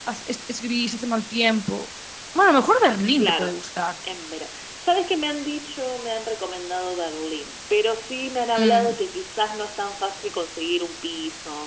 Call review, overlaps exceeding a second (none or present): none